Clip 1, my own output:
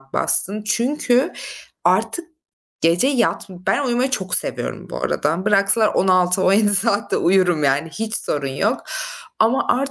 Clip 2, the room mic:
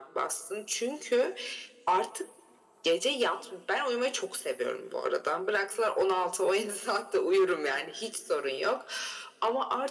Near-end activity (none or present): none